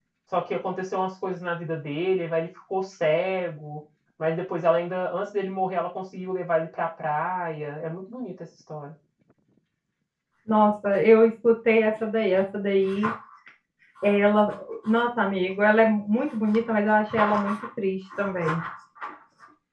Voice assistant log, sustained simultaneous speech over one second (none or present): none